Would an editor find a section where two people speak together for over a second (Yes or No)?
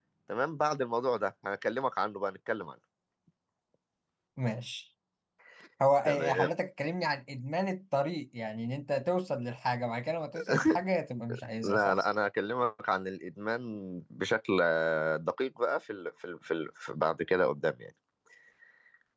No